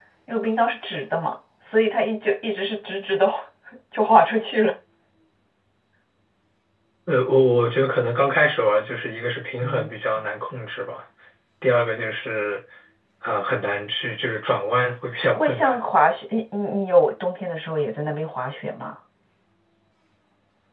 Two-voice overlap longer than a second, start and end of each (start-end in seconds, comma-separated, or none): none